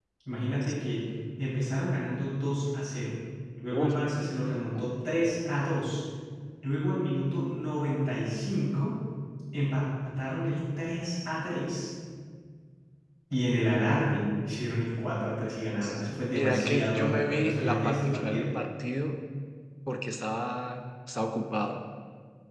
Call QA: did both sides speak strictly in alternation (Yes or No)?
No